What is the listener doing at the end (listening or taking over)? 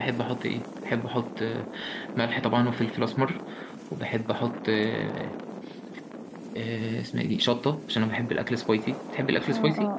taking over